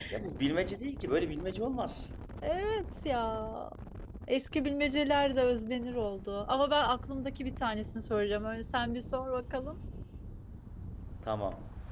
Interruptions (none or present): none